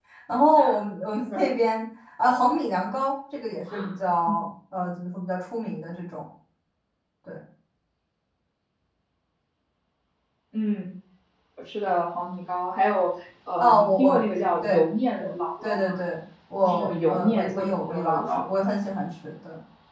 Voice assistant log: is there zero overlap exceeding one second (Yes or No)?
No